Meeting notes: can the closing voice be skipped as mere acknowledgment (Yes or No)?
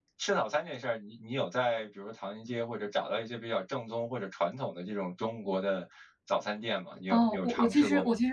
No